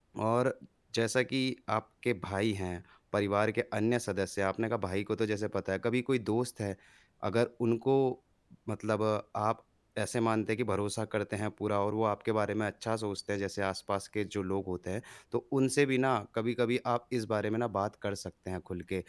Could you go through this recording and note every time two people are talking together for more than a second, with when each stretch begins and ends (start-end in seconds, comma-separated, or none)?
none